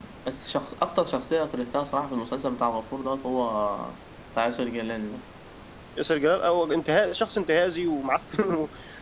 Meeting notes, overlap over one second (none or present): none